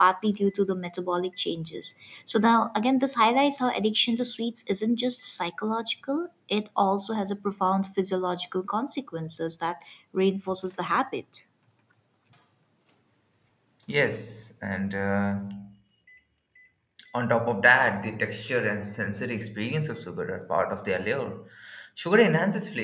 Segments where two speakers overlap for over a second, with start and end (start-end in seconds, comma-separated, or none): none